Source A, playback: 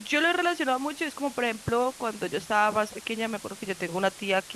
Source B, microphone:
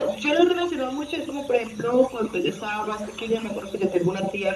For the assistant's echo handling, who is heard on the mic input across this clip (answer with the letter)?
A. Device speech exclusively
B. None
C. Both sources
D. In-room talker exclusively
A